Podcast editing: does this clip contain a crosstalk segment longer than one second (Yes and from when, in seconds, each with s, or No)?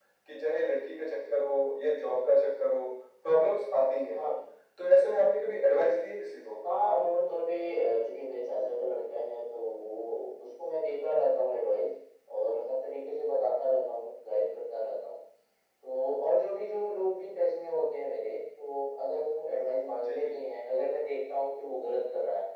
No